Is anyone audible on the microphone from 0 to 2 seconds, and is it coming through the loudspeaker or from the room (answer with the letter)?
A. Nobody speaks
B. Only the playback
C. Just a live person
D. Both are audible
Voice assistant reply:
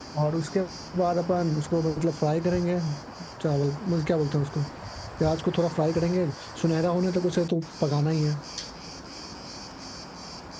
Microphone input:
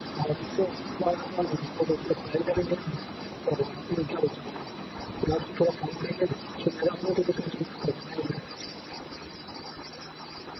B